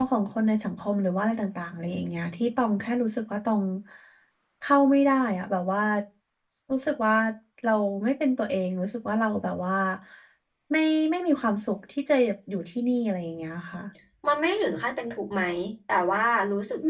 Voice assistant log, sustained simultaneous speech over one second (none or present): none